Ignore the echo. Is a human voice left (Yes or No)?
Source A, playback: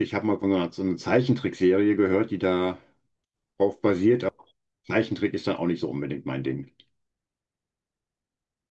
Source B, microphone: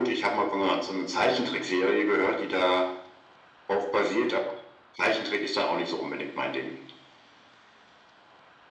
No